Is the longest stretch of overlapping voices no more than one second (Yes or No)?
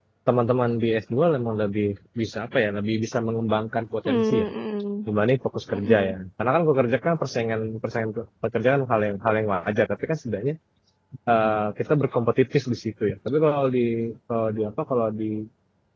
Yes